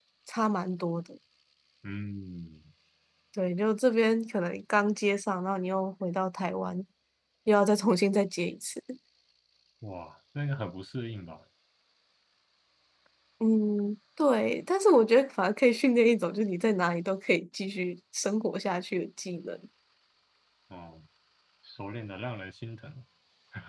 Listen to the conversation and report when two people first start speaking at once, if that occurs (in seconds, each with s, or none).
none